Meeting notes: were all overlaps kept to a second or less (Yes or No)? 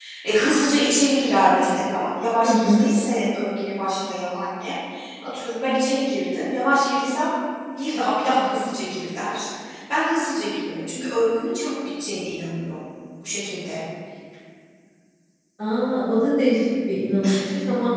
Yes